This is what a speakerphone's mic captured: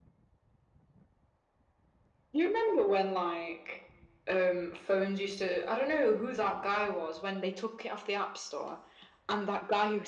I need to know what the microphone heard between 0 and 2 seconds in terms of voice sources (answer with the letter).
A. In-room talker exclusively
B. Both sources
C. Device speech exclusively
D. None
D